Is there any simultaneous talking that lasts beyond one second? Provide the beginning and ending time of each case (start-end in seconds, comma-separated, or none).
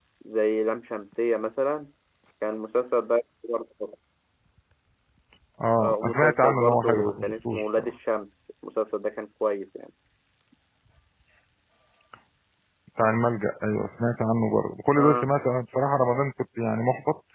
5.8-7.9